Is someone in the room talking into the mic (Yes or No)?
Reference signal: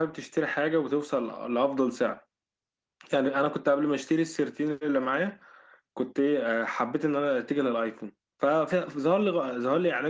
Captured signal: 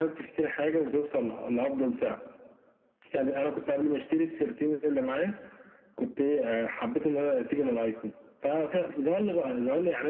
No